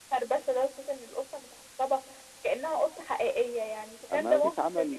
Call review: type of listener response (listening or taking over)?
taking over